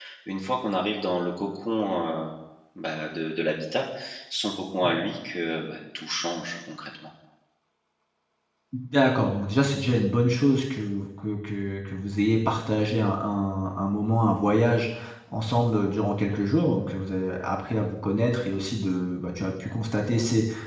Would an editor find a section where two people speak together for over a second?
No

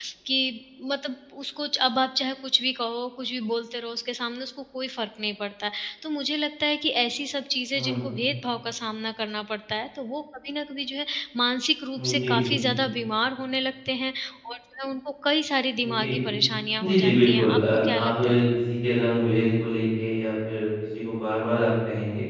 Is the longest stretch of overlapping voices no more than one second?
No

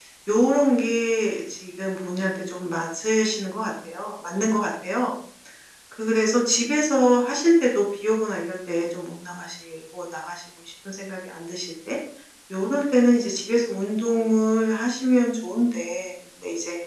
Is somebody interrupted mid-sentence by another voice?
No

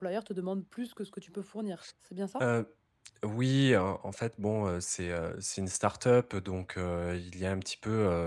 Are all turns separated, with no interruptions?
Yes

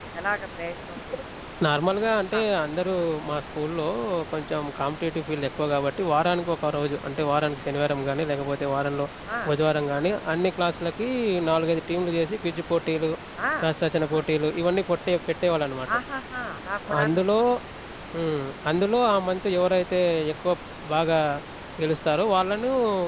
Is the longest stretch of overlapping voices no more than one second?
Yes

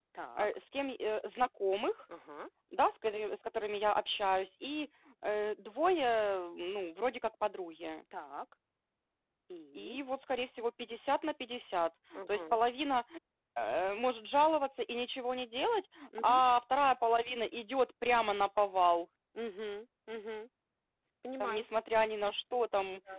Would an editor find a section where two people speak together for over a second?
No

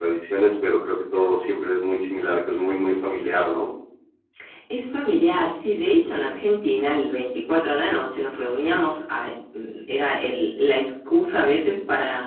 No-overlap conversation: Yes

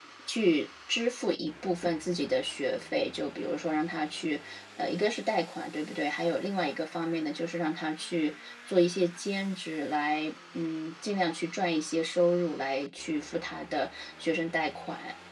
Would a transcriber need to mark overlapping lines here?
No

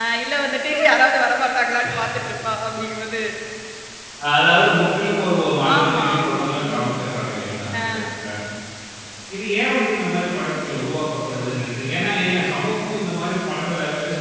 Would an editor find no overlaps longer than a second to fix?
No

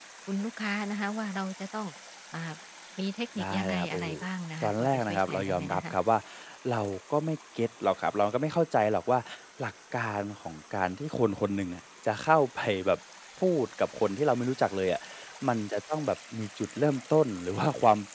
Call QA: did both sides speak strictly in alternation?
No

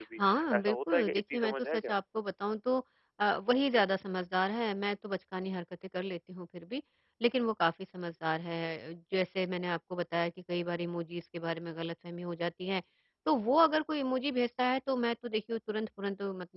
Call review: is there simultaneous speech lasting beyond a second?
Yes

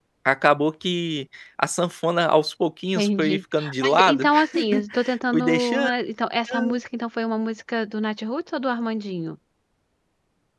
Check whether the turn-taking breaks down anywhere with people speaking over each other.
Yes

